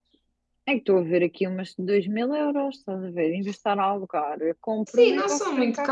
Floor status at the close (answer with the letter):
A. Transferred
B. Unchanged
A